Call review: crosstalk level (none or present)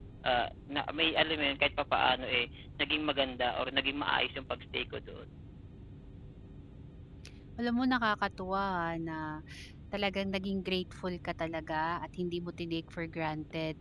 none